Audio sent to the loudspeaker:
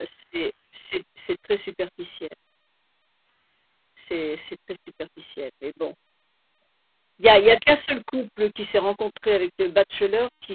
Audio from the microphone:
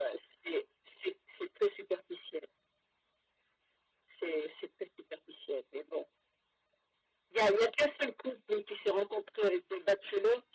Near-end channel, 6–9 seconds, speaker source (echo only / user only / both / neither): echo only